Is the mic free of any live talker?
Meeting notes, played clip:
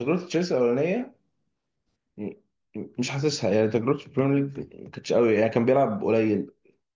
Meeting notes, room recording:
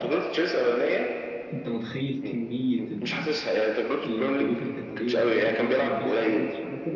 No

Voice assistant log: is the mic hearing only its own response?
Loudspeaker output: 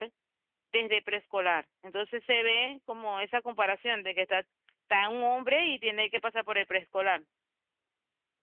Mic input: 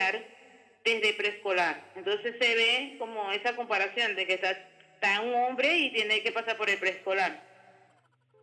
Yes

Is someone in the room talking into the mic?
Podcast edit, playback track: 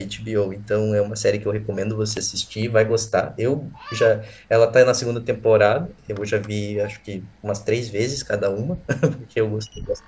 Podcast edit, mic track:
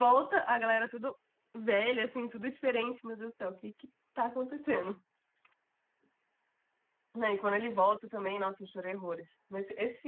Yes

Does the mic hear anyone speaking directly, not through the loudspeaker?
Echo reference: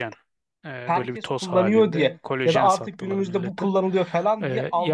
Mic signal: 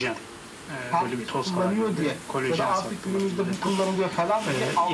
No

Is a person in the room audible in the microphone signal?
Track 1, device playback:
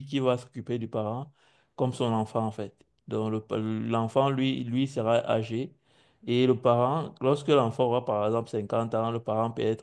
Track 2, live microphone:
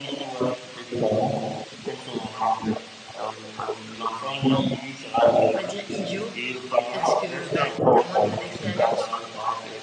Yes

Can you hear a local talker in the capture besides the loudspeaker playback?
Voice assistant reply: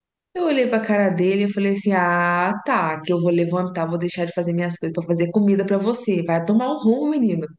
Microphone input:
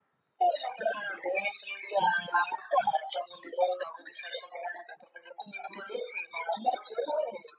No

